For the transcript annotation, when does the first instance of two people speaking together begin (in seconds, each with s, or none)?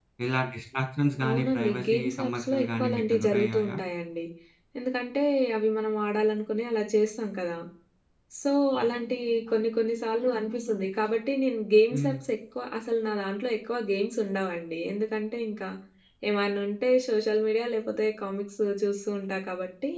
1.2 s